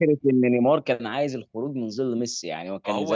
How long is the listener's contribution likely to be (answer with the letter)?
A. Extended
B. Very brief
A